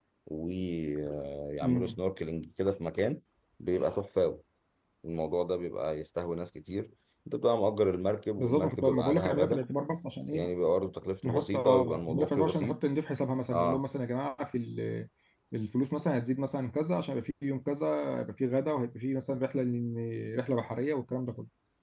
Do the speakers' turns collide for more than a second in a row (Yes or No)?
Yes